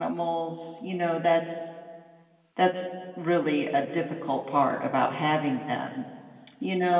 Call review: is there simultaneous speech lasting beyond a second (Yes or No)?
No